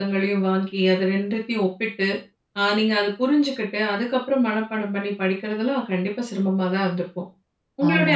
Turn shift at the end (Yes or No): No